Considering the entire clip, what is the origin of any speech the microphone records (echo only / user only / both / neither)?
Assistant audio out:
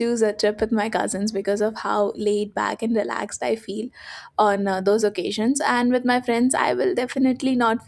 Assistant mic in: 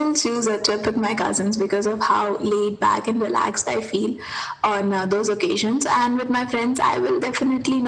echo only